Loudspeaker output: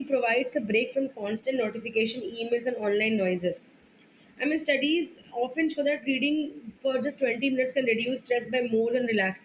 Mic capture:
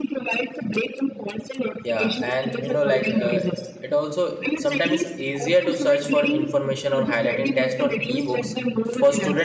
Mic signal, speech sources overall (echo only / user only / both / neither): both